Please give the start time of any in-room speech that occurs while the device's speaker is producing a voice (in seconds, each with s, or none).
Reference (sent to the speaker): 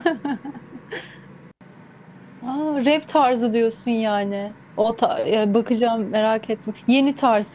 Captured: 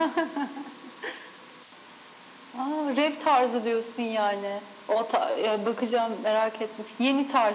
none